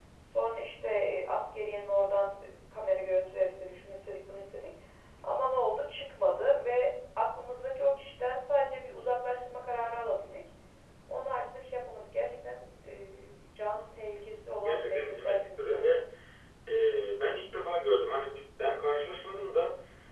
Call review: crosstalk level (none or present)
present